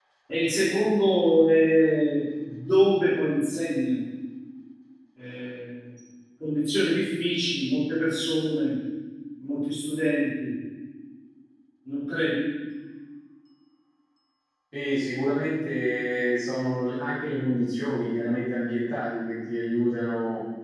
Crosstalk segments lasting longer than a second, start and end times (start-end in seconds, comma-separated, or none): none